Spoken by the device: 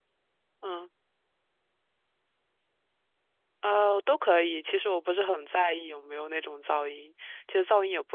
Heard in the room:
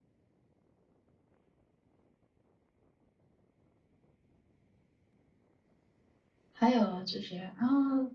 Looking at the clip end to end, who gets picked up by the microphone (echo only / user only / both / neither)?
user only